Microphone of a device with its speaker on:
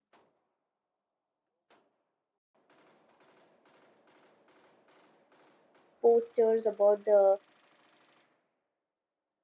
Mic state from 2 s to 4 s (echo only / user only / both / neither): neither